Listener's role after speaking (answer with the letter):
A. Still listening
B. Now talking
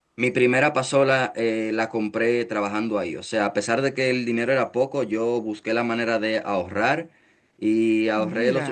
A